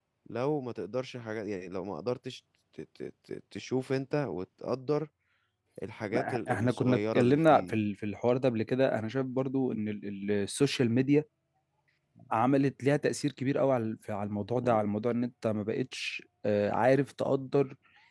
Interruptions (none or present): present